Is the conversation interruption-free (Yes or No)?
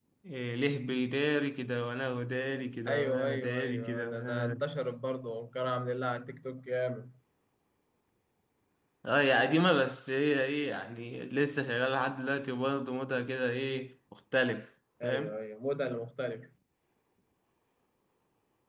No